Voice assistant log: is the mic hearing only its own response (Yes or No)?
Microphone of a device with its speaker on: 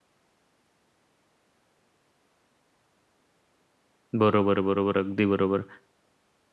No